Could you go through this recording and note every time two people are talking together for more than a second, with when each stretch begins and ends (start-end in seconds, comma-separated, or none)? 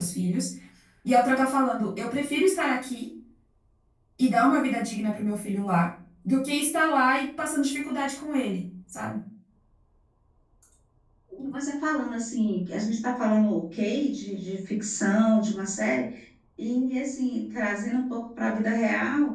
none